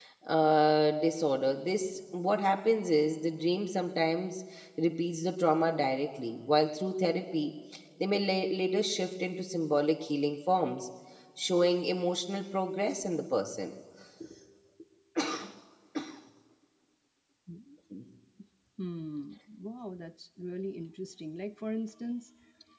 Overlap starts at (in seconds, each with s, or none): none